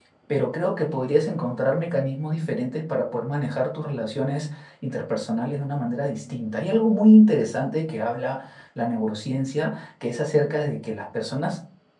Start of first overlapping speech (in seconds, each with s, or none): none